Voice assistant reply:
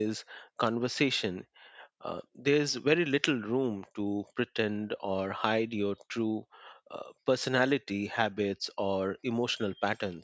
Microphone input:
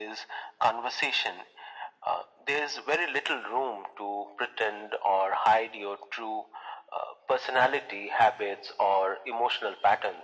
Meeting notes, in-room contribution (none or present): none